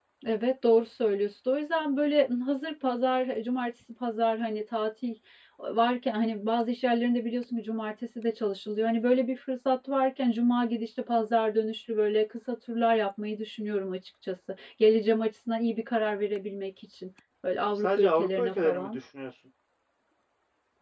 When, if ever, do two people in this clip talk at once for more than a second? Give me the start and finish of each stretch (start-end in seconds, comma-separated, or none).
17.8-19.0